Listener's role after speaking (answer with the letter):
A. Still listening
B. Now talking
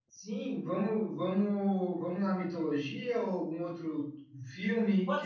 B